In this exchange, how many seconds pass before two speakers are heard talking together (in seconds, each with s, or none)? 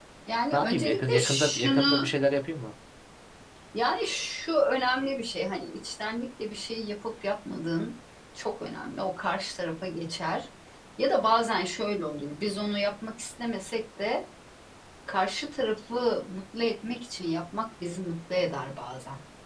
0.5 s